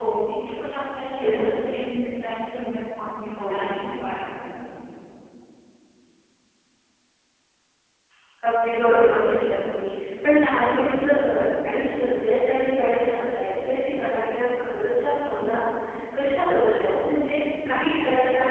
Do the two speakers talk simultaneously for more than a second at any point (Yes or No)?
No